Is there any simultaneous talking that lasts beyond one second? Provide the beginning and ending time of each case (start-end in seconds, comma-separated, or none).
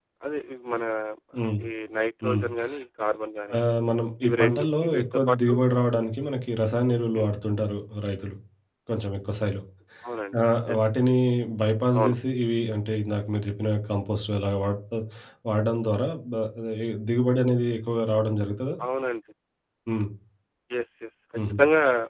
4.2-5.5